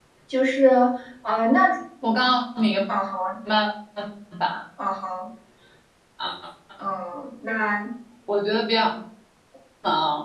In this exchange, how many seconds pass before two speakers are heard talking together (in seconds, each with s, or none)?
none